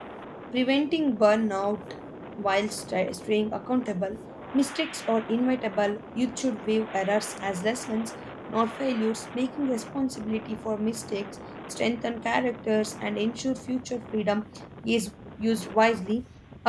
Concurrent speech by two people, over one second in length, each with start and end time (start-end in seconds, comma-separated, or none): none